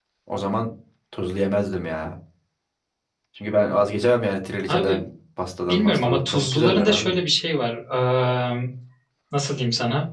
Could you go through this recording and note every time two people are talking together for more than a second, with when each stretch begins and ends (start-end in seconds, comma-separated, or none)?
5.7-7.2